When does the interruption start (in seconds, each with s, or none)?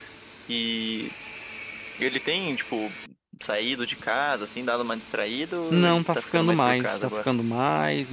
5.7 s